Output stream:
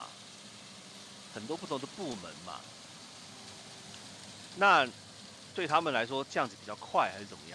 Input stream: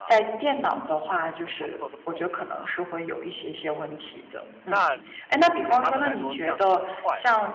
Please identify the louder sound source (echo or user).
user